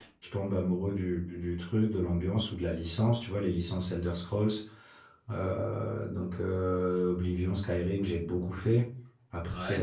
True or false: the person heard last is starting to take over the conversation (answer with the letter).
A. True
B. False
B